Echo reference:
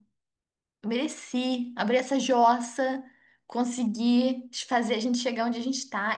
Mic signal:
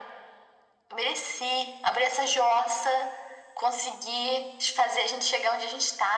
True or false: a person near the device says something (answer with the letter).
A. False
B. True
A